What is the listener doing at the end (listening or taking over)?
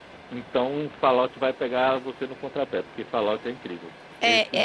taking over